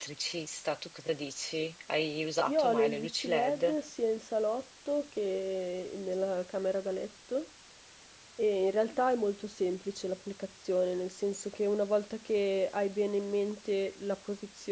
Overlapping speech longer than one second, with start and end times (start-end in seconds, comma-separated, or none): 2.5-3.7